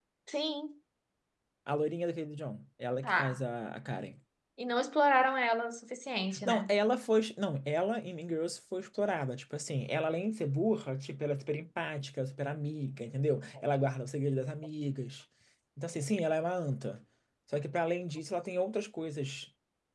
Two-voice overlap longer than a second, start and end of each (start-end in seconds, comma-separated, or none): none